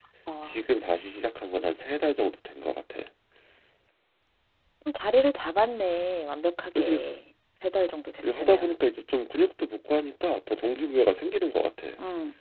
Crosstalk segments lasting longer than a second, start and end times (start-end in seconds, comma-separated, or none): none